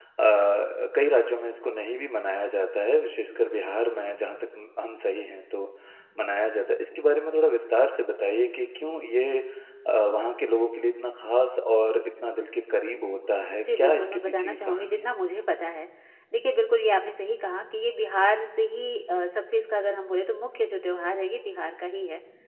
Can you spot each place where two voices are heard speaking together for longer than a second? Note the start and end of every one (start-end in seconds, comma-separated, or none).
13.5-15.0